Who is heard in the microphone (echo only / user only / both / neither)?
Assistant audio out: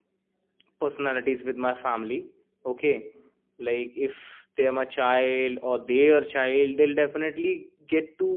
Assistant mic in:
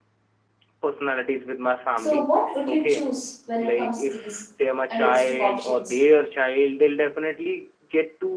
both